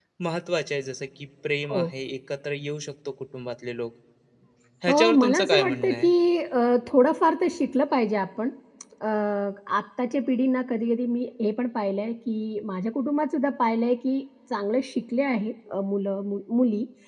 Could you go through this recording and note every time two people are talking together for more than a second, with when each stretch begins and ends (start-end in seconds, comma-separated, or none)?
4.9-6.1